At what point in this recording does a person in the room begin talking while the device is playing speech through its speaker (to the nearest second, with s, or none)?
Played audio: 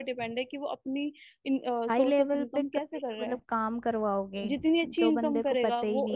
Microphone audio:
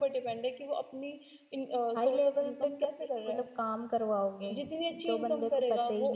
none